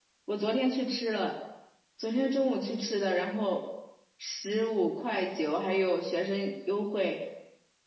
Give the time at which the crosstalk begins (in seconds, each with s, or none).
none